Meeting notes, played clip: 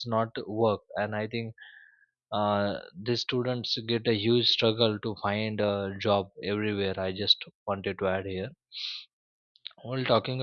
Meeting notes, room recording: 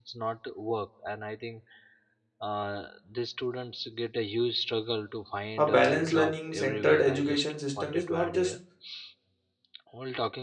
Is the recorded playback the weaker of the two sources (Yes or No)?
Yes